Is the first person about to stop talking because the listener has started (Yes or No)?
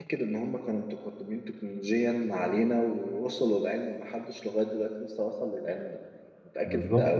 Yes